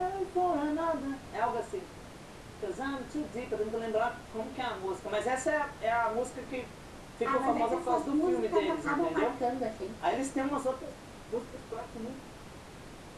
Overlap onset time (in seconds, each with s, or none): 7.2 s